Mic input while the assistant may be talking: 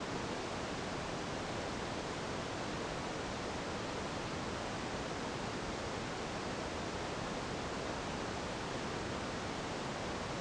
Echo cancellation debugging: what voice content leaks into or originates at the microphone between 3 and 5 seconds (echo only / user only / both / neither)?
neither